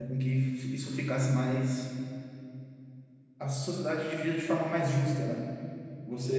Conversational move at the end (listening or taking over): taking over